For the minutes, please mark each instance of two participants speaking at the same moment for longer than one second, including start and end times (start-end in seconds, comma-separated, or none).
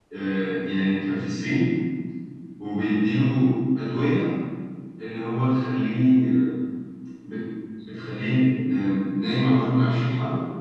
none